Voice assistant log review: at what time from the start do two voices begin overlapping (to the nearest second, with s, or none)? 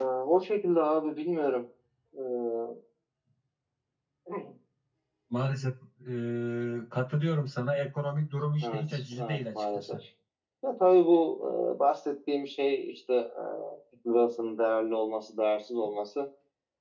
9 s